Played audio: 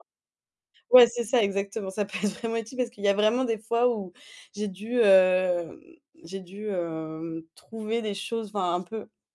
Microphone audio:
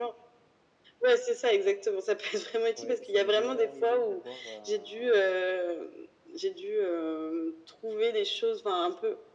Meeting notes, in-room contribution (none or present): present